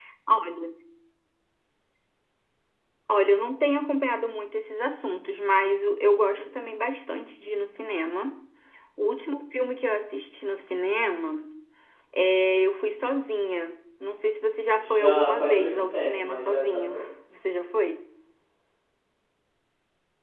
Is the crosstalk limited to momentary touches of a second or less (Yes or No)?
No